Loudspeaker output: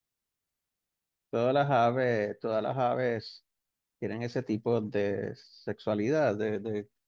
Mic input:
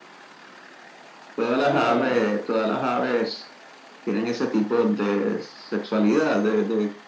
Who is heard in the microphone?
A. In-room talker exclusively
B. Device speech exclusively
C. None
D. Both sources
D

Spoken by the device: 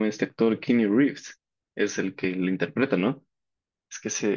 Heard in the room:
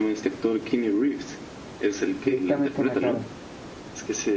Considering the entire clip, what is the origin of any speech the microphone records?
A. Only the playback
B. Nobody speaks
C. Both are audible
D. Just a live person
C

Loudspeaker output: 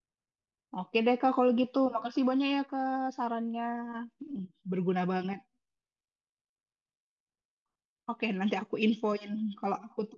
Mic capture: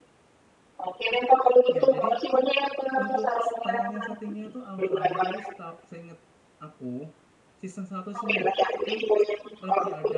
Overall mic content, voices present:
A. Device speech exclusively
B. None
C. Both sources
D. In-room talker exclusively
C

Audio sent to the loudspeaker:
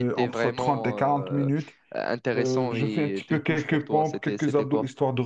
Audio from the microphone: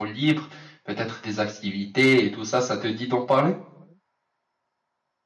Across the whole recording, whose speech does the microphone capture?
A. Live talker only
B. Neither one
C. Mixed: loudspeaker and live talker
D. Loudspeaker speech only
A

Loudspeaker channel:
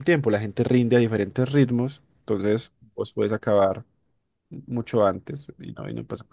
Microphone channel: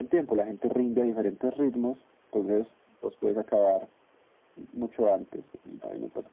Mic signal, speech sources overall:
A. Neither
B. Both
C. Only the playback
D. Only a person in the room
C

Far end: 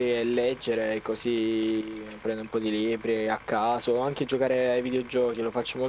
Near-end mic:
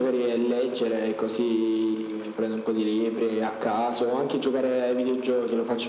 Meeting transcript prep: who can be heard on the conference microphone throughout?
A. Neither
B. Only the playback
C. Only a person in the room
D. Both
B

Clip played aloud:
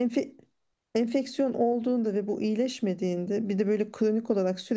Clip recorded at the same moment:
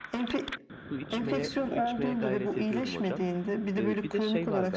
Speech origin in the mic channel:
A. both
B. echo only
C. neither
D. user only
A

